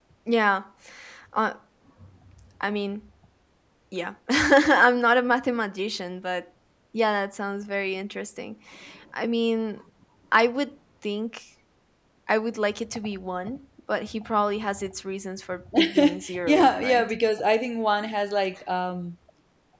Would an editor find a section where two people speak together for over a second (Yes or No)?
Yes